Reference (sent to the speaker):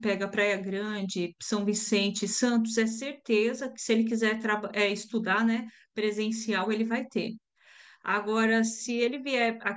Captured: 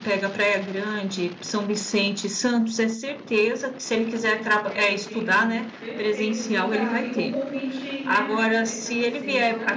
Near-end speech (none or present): present